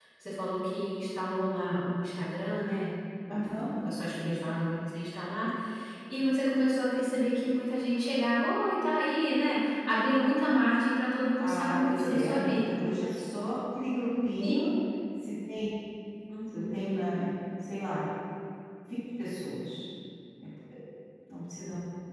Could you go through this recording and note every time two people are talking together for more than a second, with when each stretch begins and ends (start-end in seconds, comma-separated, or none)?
11.4-12.7